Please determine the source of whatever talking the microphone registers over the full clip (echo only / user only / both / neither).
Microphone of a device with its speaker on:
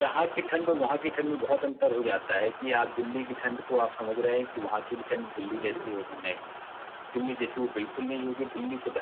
both